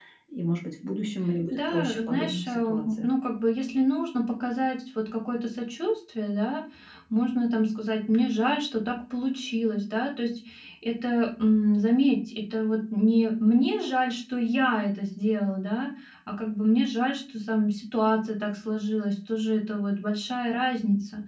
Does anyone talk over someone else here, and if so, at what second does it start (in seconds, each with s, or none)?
1.5 s